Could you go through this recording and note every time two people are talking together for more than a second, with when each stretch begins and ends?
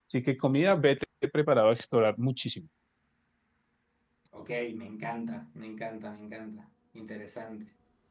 none

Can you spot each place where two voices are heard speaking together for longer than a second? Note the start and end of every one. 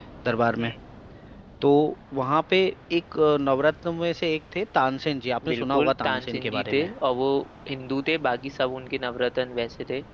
5.5-6.9

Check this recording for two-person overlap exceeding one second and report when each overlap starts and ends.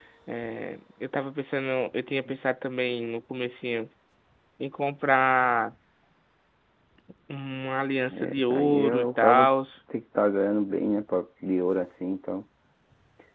8.1-9.5

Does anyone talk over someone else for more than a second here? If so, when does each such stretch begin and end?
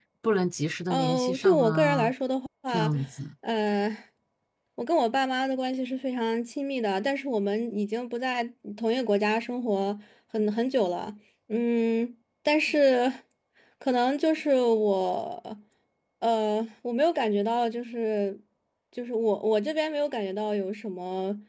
0.9-2.1

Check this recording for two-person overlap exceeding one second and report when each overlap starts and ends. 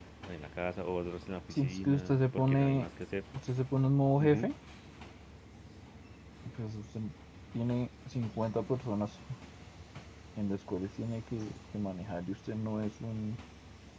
1.5-2.9

